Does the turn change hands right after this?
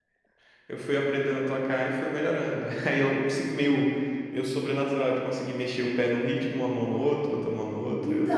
Yes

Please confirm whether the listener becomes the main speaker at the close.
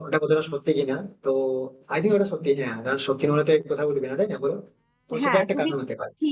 Yes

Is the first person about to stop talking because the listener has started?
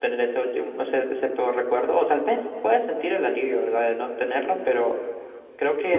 Yes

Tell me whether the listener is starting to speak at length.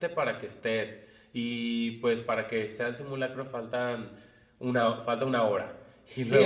Yes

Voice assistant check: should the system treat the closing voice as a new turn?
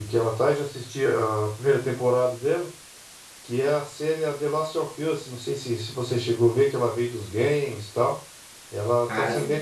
No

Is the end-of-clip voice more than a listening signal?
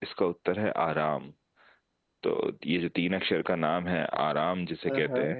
No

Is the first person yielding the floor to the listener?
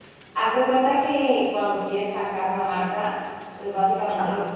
No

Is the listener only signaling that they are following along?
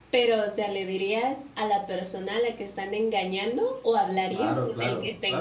No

